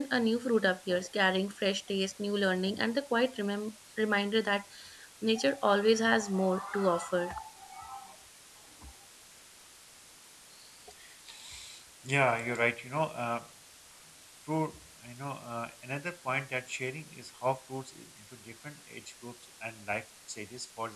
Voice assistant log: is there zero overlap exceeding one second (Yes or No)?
Yes